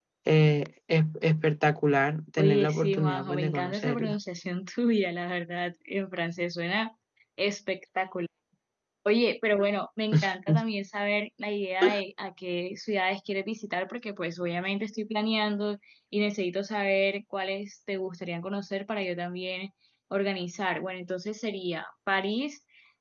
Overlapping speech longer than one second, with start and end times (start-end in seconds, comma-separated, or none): 2.4-4.2